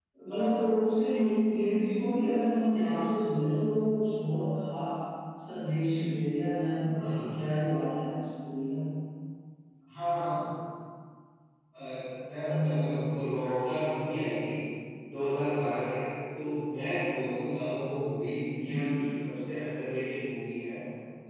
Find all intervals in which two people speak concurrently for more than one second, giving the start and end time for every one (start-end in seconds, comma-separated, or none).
none